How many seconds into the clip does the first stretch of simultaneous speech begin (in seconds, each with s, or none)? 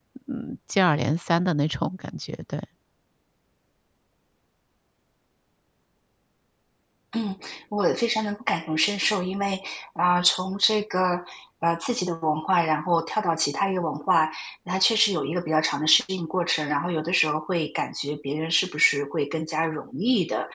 none